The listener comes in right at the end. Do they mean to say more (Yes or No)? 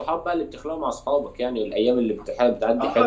Yes